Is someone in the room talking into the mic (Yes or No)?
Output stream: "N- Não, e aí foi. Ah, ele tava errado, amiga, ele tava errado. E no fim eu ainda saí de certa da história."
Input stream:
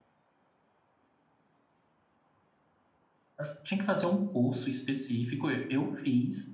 Yes